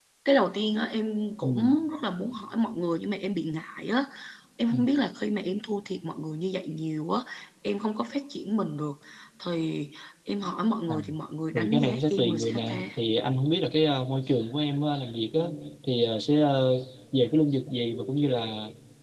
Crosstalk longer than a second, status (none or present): present